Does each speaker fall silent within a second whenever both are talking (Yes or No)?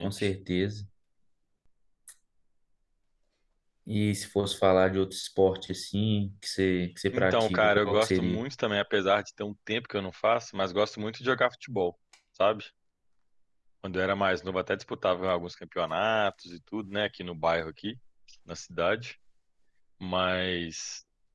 No